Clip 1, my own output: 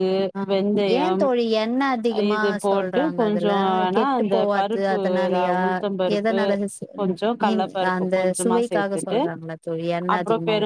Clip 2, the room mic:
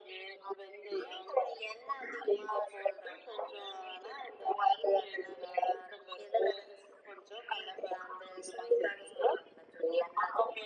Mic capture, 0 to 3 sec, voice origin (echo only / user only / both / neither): echo only